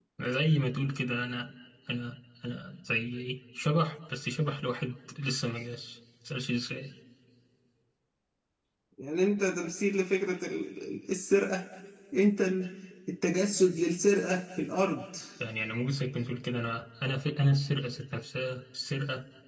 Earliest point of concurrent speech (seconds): none

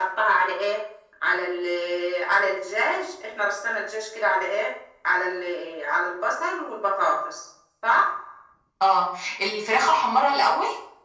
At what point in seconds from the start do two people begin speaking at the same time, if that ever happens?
none

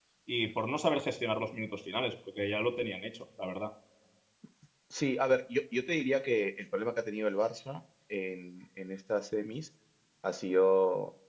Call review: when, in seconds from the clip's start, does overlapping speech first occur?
none

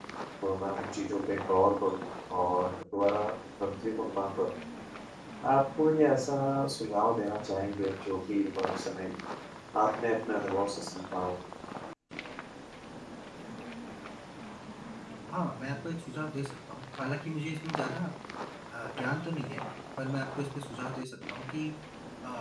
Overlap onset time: none

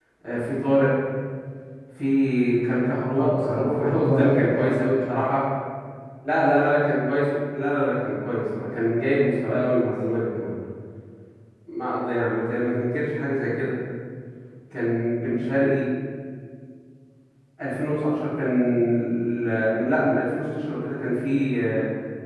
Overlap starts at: 3 s

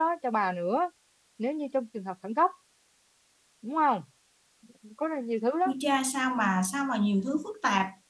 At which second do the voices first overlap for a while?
none

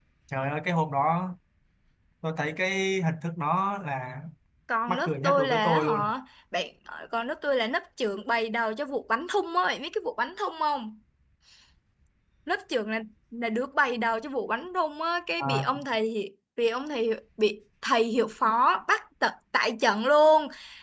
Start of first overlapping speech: 5 s

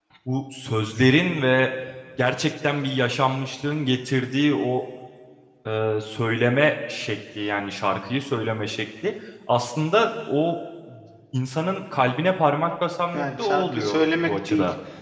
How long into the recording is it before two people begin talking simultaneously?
13 s

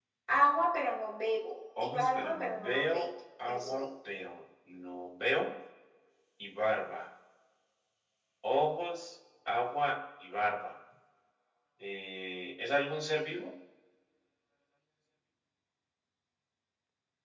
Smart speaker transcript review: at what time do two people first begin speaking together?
2 s

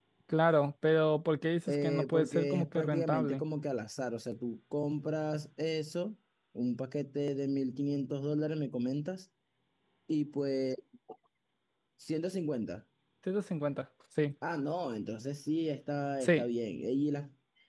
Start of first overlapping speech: 2 s

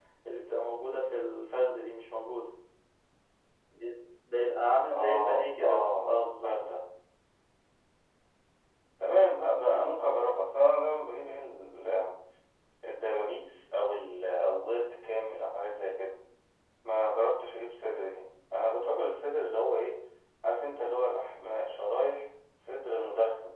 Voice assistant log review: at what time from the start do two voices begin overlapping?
5 s

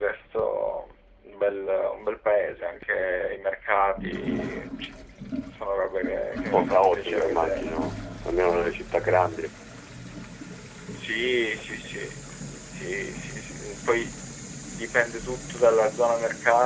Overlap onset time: 6 s

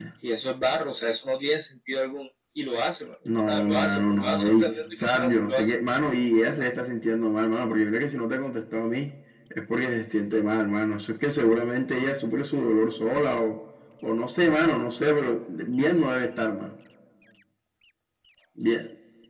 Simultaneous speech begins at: 3 s

